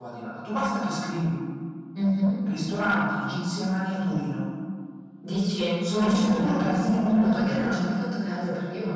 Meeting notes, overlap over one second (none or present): present